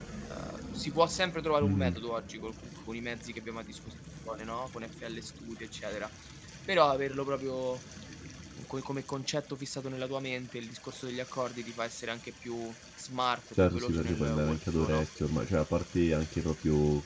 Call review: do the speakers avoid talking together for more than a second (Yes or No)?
No